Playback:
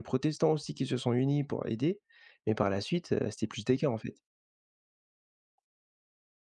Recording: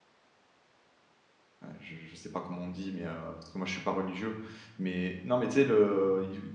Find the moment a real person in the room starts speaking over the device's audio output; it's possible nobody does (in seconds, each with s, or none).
1.6 s